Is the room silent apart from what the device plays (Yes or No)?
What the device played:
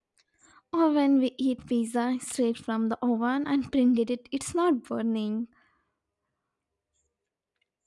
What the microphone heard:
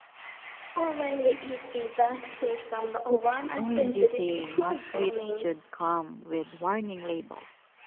No